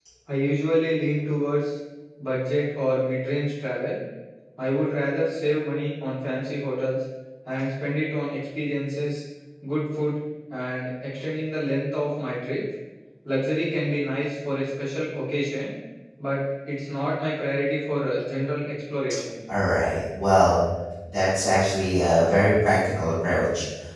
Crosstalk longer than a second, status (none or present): none